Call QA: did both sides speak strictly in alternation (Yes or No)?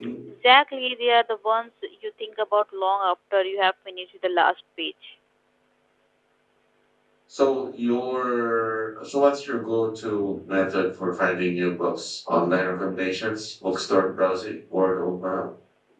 Yes